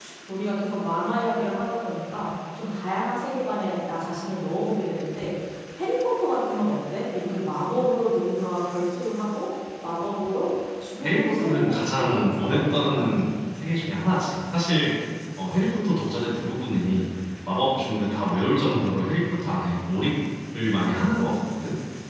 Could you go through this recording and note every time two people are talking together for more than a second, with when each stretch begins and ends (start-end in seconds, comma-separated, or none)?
11.0-13.2